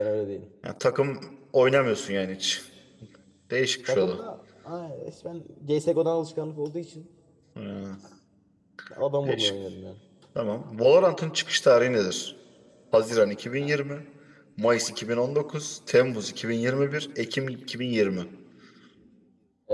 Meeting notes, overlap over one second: none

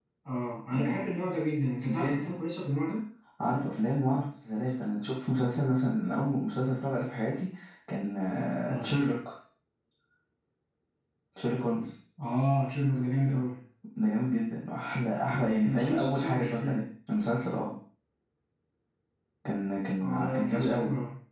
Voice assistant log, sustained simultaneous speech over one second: present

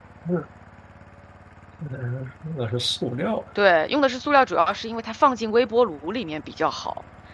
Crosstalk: none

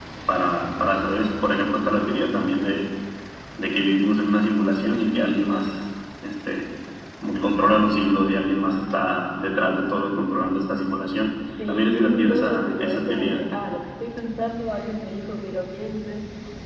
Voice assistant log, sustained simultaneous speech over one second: present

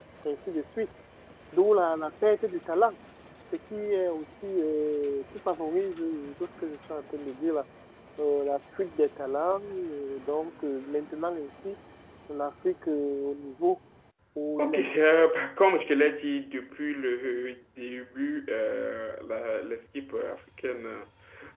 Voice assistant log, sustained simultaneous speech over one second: none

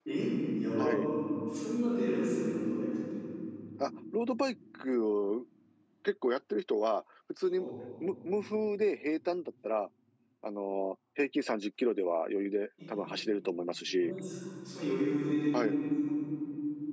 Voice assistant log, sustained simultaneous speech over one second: none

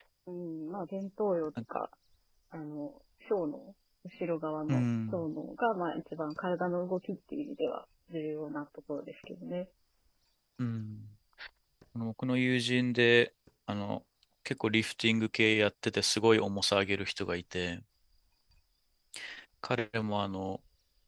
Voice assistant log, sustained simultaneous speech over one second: none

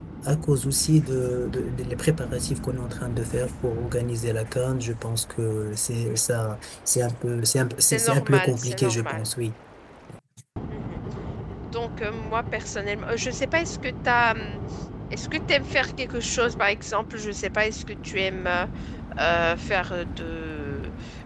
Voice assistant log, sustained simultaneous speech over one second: present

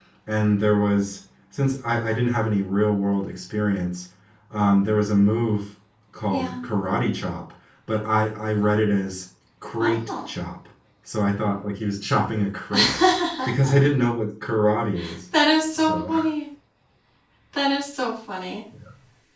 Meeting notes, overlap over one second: none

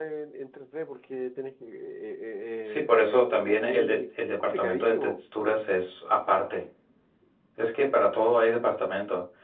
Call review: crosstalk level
present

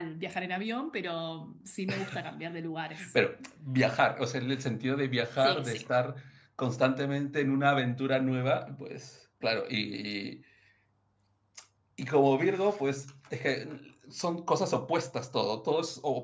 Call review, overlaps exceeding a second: none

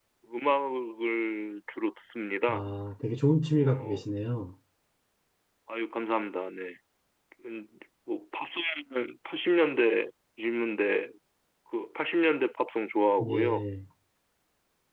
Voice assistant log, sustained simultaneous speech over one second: none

